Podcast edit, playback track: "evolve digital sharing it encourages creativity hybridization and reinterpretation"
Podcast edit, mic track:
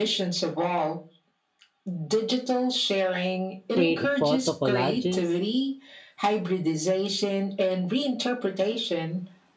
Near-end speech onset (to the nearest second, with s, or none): 4 s